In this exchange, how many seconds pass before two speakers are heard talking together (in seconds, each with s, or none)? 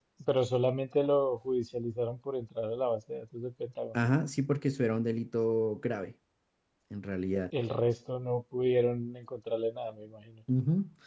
none